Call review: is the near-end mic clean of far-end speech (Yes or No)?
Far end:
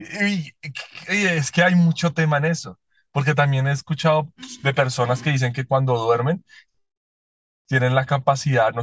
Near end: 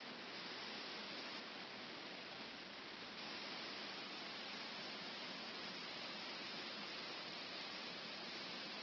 Yes